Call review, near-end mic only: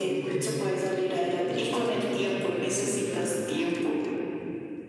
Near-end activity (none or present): present